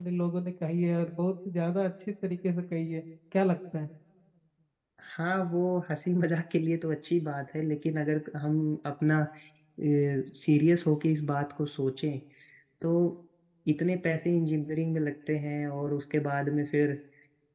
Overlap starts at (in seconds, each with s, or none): none